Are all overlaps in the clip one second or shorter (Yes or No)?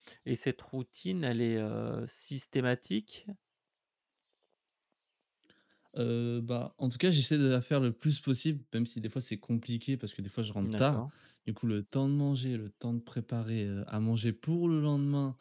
Yes